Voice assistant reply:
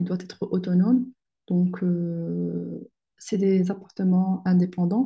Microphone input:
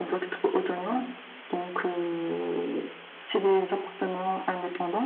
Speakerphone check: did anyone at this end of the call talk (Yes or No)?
No